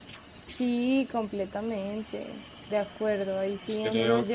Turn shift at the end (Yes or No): No